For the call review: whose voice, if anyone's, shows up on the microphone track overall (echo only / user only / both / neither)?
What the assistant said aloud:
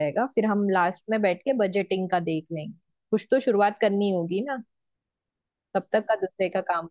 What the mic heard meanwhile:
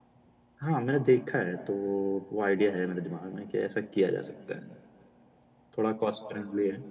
user only